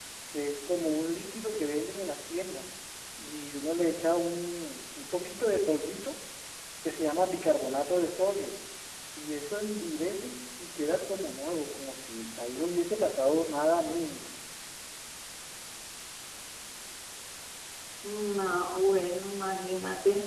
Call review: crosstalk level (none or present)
none